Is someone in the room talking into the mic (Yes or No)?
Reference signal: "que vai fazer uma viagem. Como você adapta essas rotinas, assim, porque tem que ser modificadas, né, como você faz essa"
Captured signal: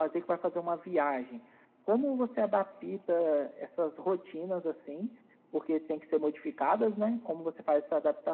No